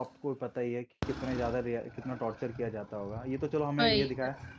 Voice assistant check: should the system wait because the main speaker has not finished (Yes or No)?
Yes